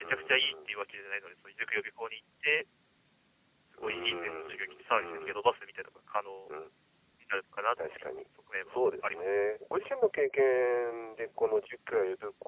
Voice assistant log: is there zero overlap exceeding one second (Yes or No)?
No